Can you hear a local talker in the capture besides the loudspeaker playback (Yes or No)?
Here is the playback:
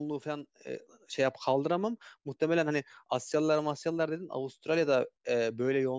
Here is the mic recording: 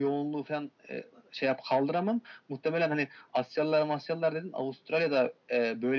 No